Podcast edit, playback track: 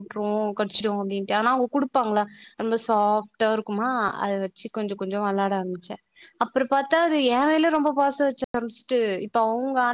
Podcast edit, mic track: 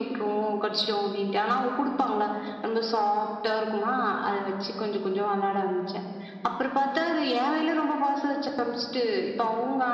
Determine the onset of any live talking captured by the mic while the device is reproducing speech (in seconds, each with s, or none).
none